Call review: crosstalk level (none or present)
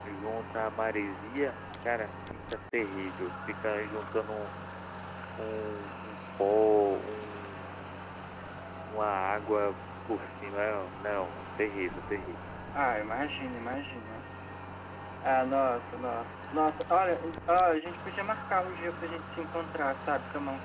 none